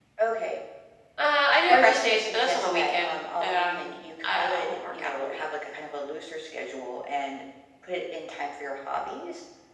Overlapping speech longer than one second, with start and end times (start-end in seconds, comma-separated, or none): 1.7-5.4